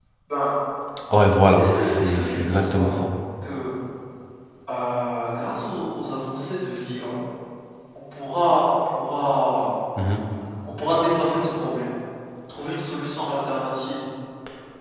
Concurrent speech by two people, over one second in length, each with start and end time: 1.6-3.0

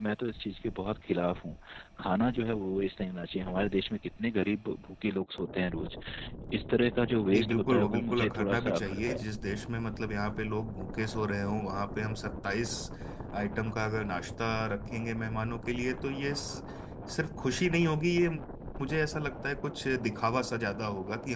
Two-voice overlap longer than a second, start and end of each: 7.3-9.2

